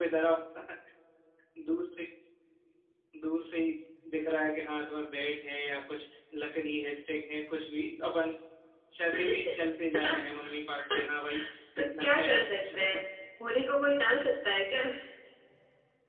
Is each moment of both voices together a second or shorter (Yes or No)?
No